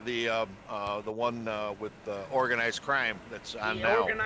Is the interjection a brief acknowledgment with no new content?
No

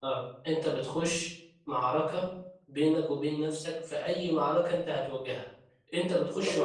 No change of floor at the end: Yes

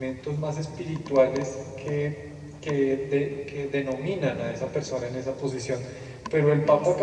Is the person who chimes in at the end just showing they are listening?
Yes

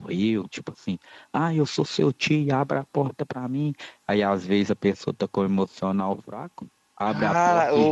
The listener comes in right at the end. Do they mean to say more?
Yes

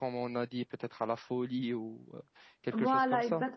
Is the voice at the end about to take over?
Yes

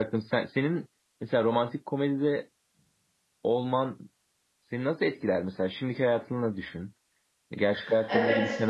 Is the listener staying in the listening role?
No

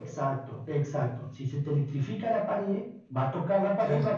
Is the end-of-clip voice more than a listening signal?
No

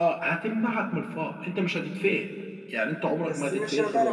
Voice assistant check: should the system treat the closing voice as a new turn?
Yes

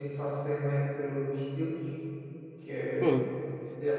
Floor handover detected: No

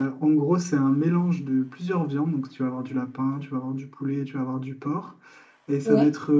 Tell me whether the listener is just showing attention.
Yes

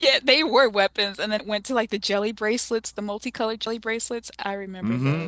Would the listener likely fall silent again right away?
No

